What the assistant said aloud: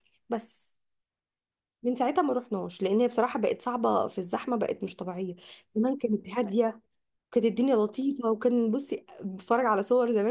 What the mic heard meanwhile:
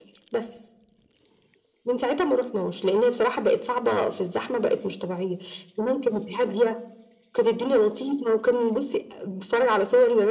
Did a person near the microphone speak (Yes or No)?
No